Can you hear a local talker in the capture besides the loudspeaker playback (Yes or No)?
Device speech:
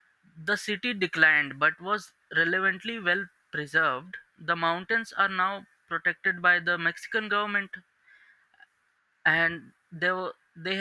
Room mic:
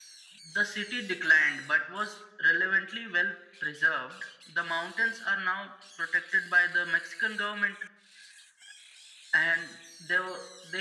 No